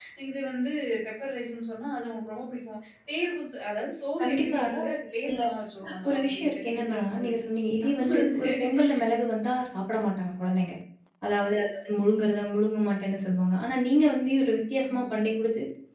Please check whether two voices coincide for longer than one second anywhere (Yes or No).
Yes